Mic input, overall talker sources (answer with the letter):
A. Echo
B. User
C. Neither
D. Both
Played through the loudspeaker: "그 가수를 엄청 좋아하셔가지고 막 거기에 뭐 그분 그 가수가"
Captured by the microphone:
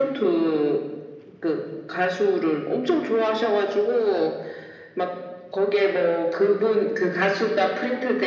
A